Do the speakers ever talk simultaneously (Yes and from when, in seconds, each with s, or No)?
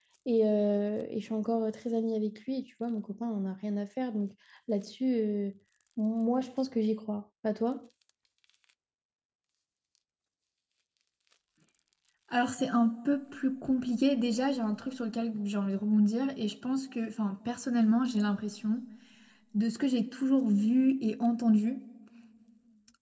No